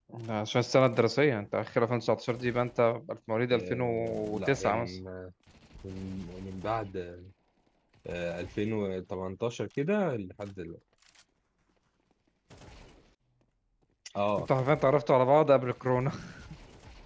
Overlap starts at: 3.5 s

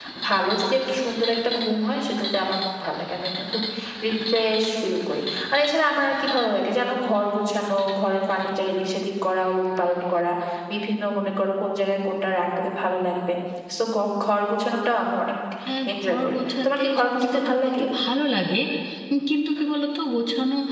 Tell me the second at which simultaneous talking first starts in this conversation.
15.9 s

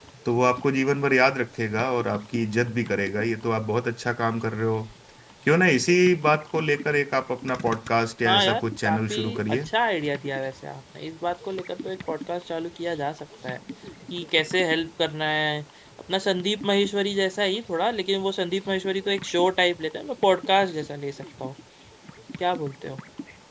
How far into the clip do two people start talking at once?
8.2 s

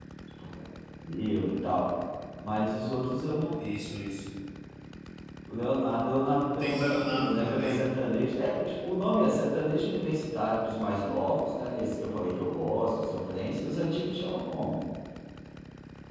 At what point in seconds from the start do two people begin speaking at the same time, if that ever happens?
6.6 s

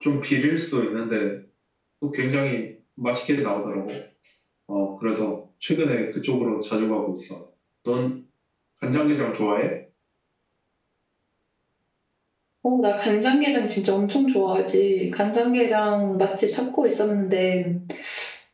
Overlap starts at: none

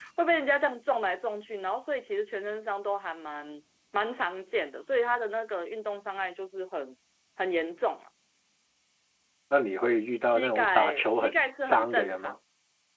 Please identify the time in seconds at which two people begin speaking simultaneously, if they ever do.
10.2 s

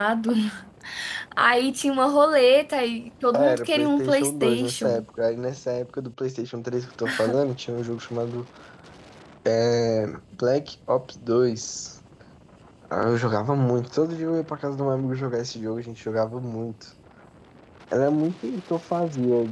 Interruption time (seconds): 3.3 s

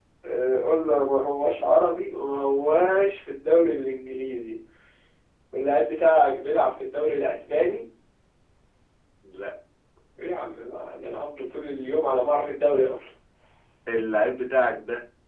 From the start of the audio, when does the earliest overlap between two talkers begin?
none

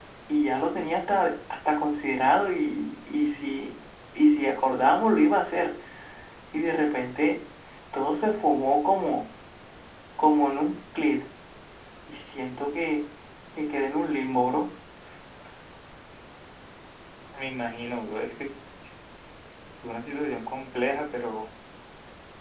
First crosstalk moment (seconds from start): none

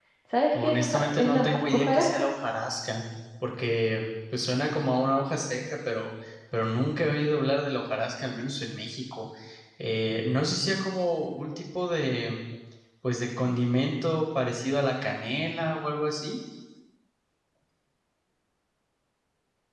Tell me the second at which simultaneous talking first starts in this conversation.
0.6 s

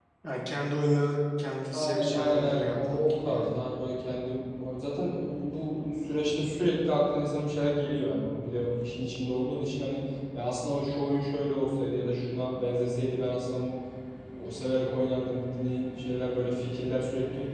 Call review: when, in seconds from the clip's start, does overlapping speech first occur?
1.7 s

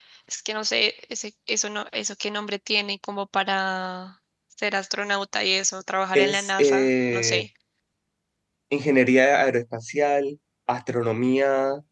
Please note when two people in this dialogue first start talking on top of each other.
6.1 s

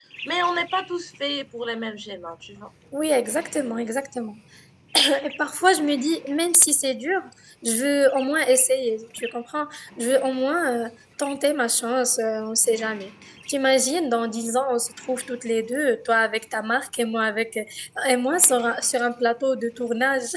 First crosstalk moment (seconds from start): none

